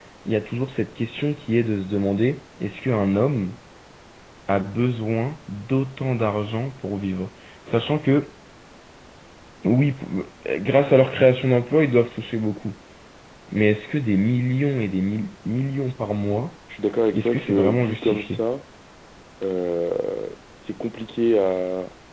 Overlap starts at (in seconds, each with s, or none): 17.1 s